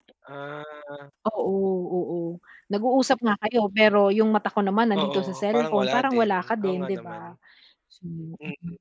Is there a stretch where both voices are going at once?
Yes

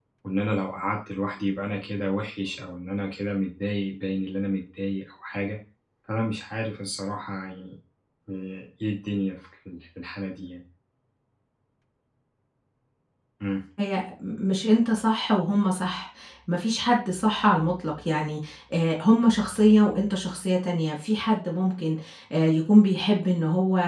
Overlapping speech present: No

